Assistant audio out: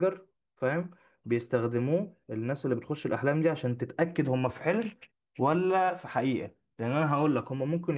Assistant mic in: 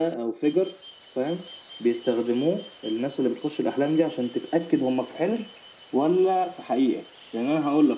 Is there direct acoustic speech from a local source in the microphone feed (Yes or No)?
No